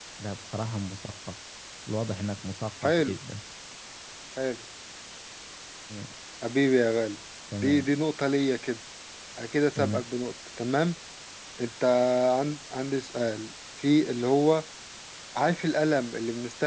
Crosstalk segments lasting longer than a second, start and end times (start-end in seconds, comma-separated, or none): none